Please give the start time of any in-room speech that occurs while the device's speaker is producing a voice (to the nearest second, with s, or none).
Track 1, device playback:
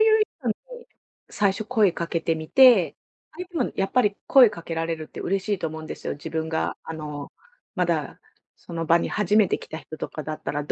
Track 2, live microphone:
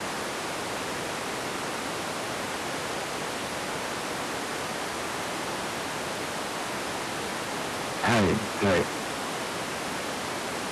8 s